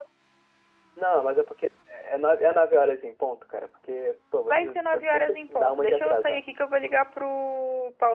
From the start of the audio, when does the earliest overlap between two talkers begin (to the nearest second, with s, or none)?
4 s